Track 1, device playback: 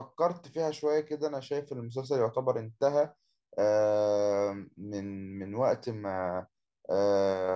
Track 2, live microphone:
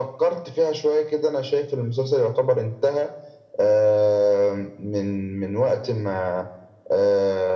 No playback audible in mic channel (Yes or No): No